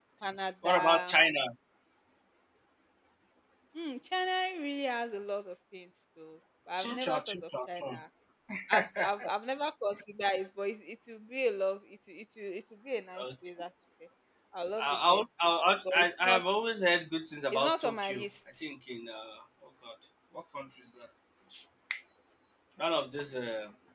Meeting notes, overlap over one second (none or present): present